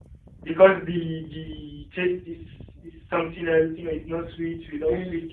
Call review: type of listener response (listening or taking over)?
listening